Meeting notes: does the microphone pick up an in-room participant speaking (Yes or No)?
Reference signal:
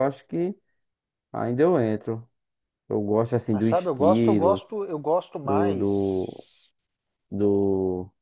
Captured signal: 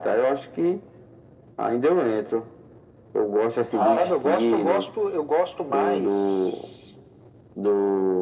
Yes